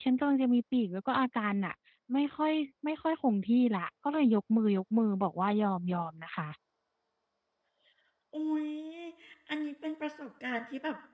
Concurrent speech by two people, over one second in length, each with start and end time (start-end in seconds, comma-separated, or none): none